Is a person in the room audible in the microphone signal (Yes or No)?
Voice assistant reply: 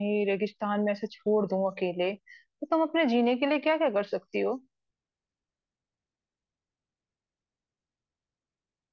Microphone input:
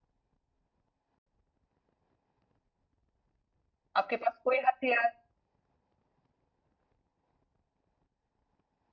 Yes